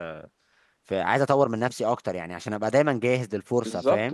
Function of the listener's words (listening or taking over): taking over